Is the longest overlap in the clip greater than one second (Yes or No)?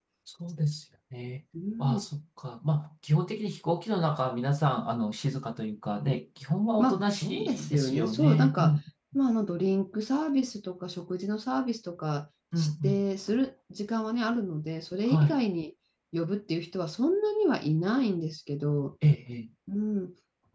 Yes